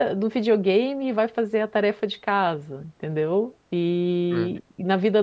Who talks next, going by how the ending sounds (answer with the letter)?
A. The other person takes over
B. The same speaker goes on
B